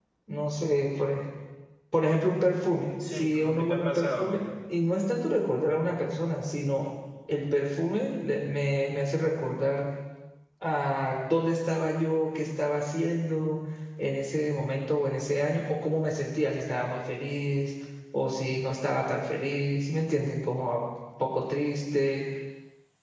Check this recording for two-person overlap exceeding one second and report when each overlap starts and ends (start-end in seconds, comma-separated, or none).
3.1-4.4